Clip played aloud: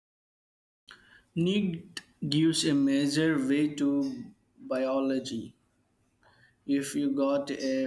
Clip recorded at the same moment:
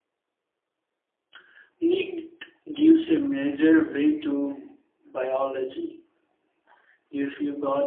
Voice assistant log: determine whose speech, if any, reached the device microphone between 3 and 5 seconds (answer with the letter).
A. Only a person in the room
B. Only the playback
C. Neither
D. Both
B